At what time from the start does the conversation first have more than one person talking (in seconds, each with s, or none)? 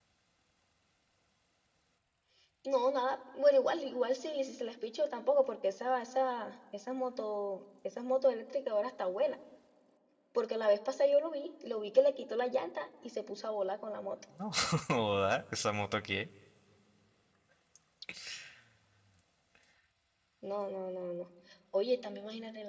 none